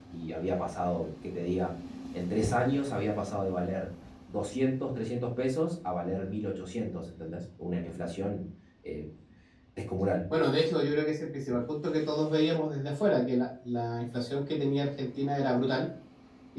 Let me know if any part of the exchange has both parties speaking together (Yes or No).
No